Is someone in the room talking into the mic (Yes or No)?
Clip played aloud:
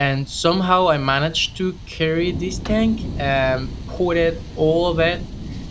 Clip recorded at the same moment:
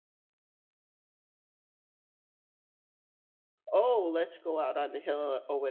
Yes